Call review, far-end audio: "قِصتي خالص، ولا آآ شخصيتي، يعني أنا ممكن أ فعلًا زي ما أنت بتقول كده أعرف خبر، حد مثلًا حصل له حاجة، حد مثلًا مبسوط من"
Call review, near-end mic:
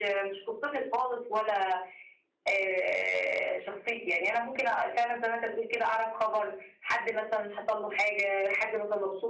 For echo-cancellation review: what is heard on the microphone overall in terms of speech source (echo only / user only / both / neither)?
echo only